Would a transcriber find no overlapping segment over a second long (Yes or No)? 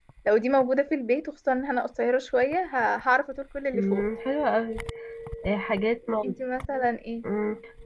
Yes